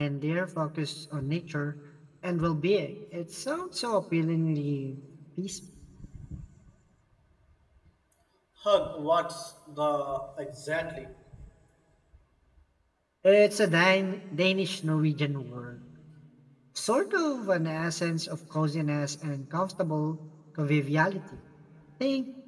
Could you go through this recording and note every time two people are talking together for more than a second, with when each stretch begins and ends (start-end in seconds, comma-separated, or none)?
none